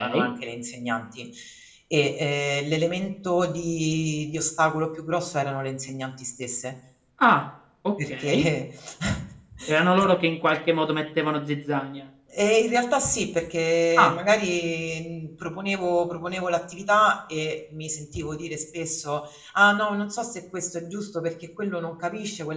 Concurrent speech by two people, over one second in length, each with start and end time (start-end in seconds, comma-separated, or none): none